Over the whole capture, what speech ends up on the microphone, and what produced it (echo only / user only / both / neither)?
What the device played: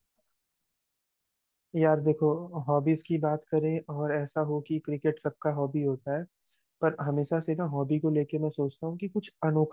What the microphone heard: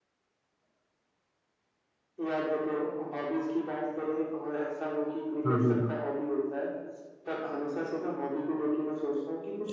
both